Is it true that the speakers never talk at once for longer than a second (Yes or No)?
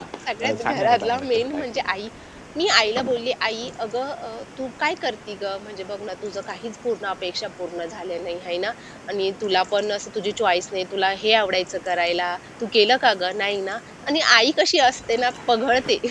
No